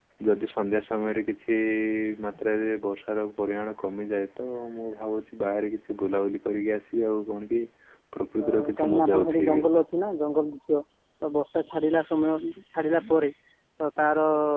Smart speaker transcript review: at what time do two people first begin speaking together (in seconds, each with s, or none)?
8.5 s